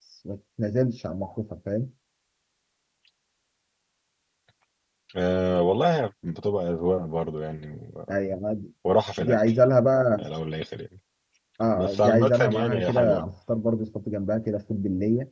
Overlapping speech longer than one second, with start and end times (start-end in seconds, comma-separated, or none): 11.7-13.2